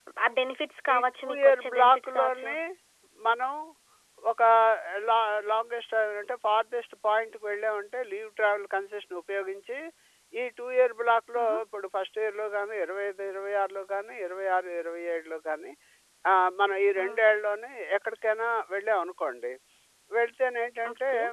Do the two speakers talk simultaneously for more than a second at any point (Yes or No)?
Yes